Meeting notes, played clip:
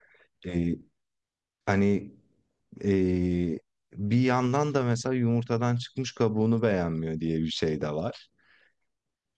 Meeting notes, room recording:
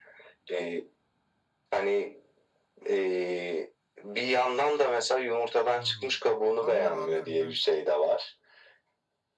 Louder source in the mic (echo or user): echo